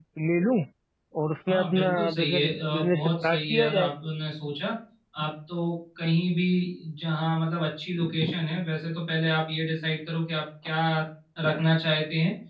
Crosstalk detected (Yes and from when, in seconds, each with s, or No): Yes, from 1.5 s